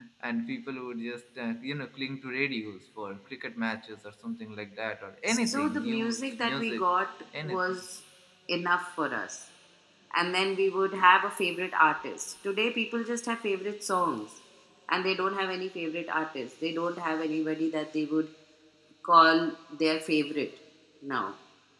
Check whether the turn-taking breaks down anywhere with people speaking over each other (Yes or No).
Yes